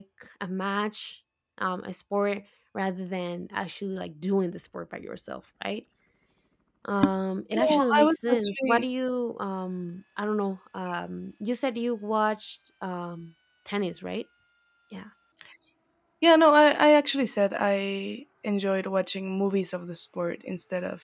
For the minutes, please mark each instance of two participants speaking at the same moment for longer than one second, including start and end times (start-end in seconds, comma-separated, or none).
7.5-8.8